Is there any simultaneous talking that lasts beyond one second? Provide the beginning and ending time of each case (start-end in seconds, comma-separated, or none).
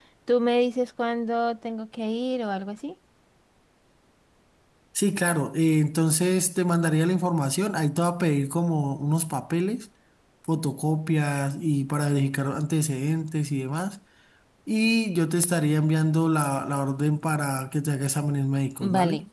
none